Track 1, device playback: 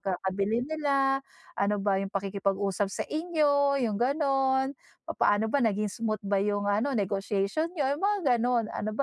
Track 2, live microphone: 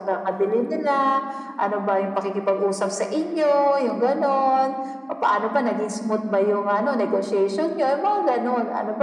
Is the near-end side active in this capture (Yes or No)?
No